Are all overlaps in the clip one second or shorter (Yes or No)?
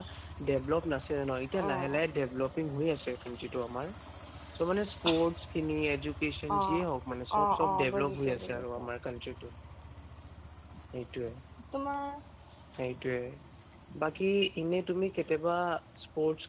No